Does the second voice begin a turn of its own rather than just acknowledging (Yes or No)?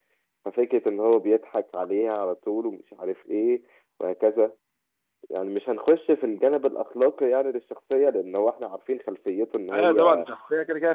Yes